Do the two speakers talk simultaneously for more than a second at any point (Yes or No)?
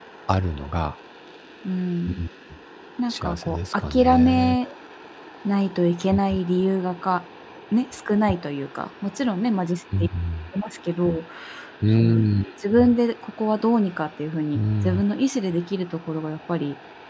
Yes